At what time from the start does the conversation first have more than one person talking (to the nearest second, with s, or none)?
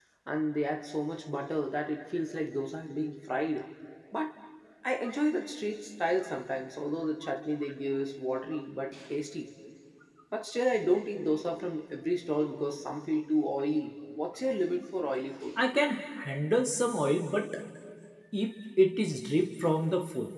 none